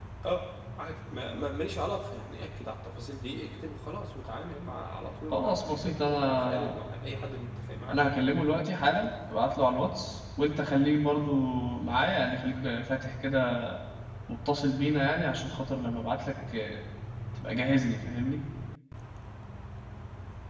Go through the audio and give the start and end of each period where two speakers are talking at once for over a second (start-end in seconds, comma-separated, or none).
5.3-6.7